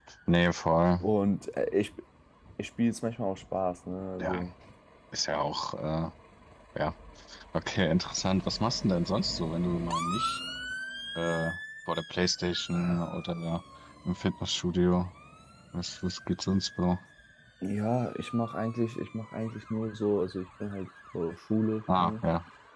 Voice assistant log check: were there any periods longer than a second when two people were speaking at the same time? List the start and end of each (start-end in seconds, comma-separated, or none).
none